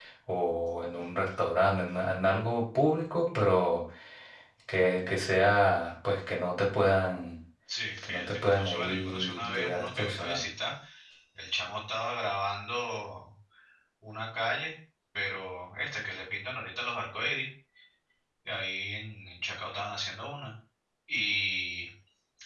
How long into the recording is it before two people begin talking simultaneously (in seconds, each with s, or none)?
8.0 s